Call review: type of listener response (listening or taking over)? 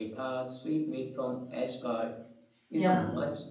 listening